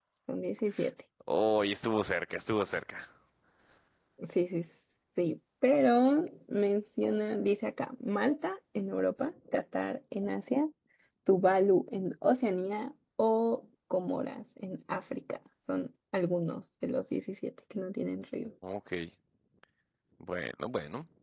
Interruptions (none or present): none